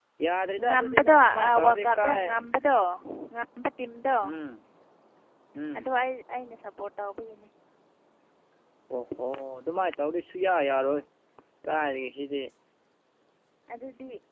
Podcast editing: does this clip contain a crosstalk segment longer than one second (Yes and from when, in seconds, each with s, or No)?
Yes, from 0.6 s